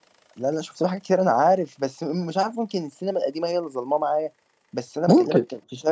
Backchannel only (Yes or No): Yes